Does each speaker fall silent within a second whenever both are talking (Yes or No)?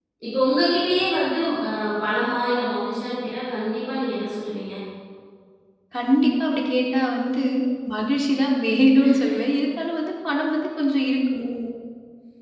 Yes